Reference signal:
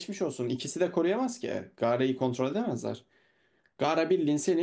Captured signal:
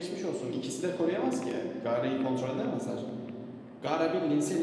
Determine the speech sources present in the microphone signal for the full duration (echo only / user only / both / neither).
echo only